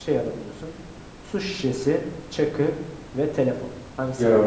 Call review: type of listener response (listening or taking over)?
taking over